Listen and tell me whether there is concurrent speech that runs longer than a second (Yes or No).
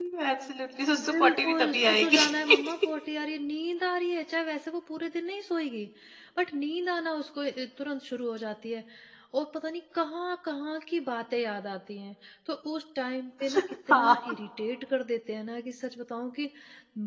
Yes